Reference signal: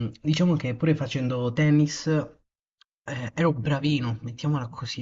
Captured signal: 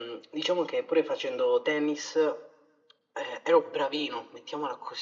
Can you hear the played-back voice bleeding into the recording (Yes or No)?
Yes